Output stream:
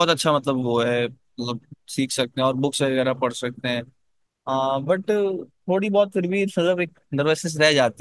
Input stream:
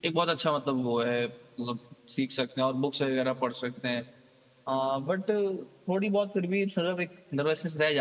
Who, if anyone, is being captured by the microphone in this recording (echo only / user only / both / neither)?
echo only